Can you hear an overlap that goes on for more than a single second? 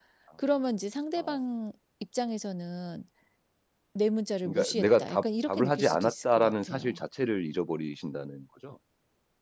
Yes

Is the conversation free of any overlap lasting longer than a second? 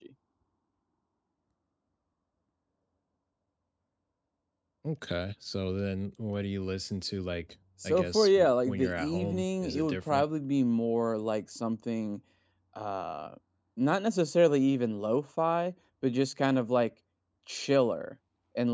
No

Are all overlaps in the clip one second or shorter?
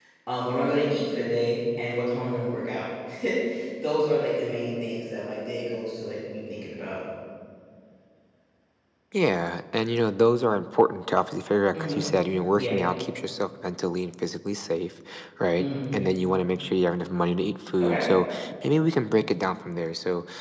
Yes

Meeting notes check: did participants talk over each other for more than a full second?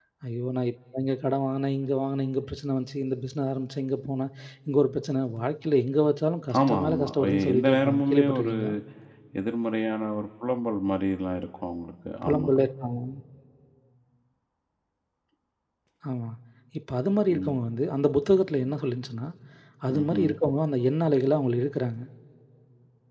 Yes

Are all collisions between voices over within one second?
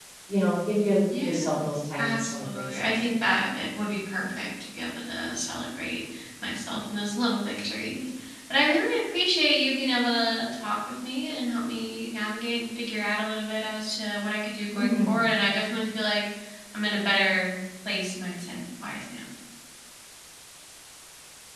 No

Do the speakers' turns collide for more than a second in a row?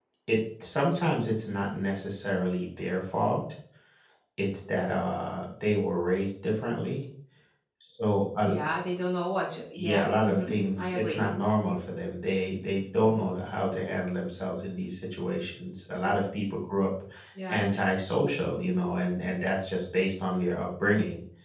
Yes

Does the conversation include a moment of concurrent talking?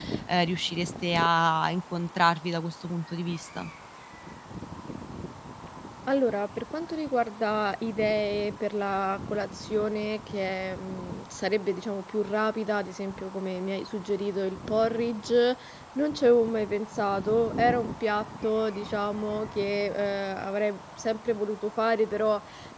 No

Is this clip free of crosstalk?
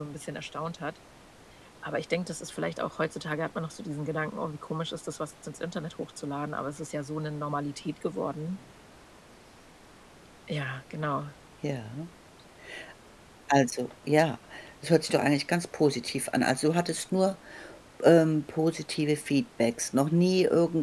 Yes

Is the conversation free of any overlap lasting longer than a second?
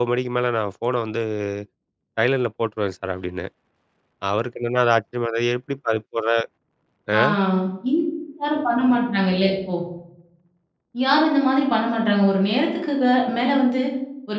Yes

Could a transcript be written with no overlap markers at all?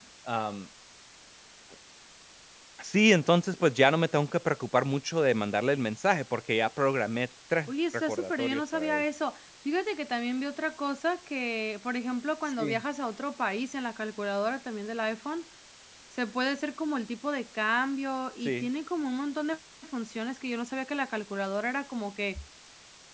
No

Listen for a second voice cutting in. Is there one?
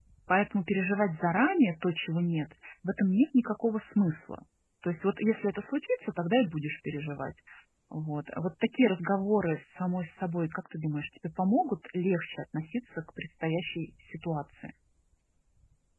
No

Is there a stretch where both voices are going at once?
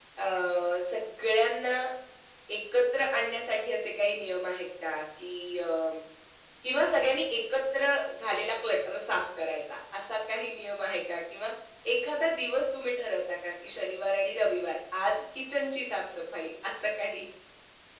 No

